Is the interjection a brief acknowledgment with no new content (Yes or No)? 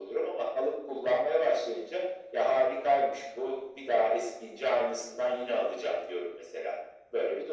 No